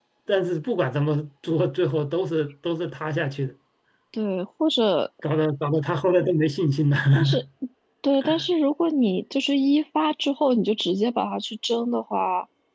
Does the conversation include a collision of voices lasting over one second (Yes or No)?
No